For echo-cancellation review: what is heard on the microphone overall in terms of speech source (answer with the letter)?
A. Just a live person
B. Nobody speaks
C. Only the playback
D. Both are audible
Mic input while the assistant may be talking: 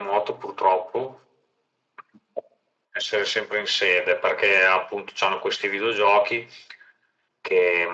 C